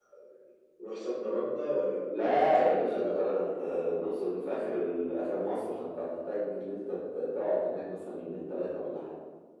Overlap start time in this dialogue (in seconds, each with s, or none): 2.1 s